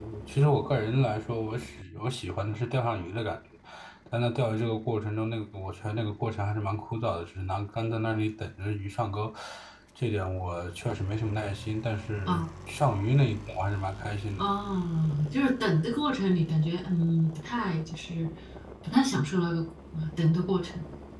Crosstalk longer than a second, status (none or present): none